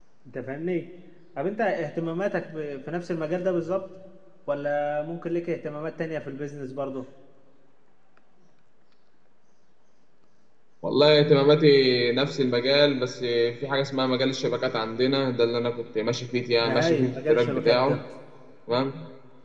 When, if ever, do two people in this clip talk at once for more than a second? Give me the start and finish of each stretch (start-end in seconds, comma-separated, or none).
16.6-18.0